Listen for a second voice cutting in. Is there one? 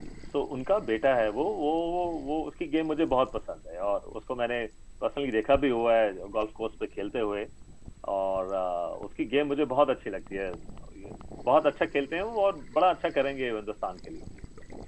No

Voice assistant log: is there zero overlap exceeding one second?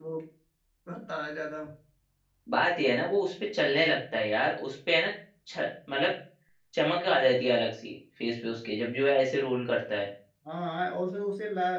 Yes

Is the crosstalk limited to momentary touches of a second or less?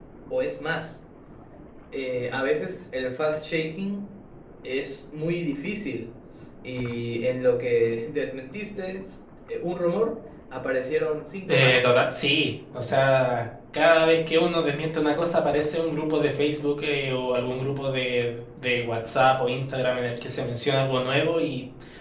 Yes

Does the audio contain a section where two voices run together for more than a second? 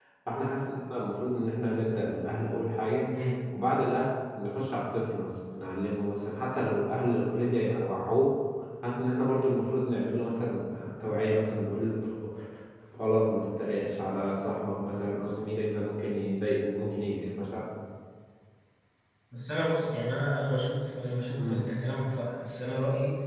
No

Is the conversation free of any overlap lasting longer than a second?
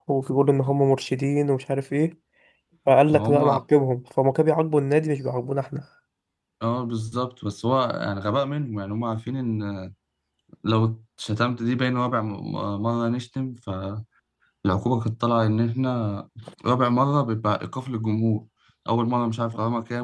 Yes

